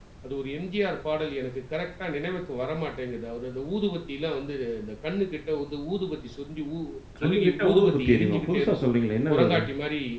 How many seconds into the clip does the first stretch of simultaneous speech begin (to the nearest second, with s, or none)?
7 s